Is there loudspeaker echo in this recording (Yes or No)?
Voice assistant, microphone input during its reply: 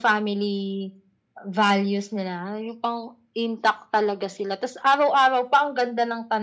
Yes